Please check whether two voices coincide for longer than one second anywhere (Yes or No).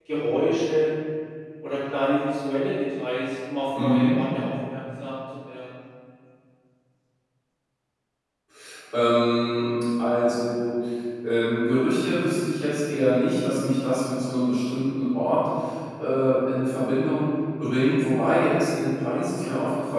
No